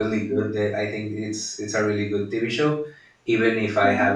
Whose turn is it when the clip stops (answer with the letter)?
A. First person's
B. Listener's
A